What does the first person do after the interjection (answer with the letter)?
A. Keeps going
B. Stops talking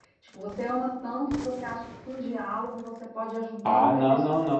B